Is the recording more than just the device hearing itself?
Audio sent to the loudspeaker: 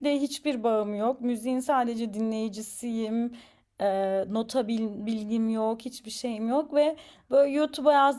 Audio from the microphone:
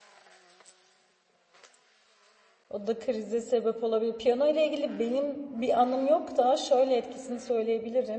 Yes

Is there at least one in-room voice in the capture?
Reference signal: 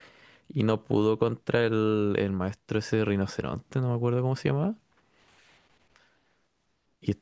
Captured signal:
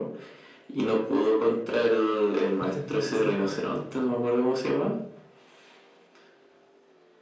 Yes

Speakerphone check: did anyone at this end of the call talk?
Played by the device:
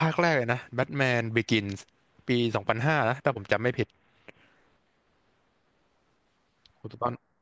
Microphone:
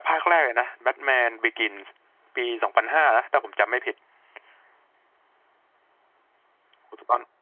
No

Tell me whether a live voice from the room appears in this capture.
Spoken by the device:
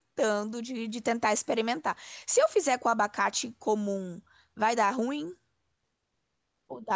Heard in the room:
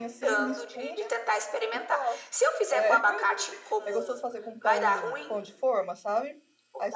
Yes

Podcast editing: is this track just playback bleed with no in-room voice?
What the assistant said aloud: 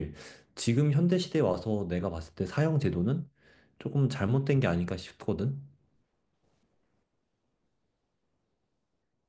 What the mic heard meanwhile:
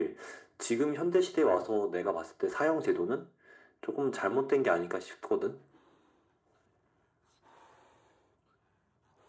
Yes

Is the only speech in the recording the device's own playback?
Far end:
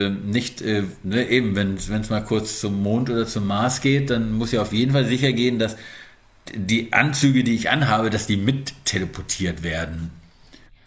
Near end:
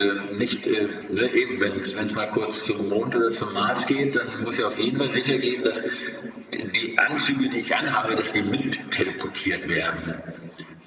Yes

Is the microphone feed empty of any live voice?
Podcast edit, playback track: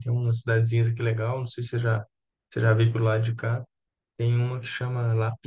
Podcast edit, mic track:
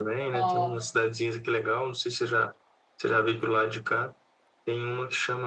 No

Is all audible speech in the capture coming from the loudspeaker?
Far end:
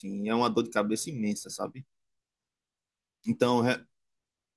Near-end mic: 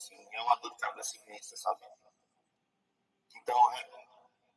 Yes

